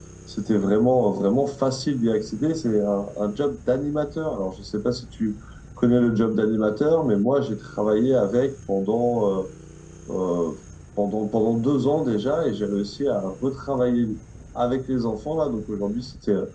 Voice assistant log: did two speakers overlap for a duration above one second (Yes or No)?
No